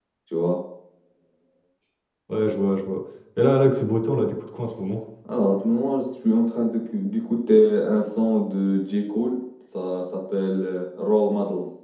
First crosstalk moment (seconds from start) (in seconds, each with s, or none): none